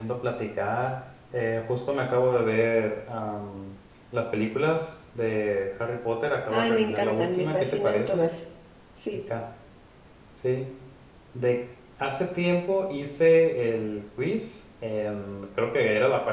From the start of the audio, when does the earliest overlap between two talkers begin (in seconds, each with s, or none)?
6.5 s